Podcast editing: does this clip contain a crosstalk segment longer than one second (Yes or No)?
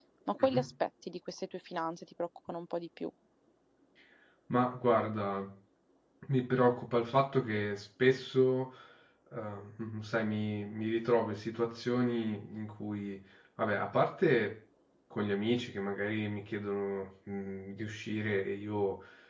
No